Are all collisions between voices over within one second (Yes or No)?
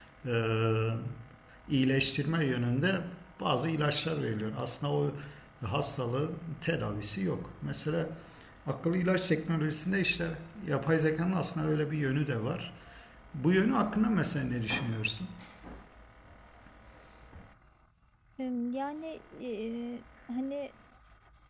Yes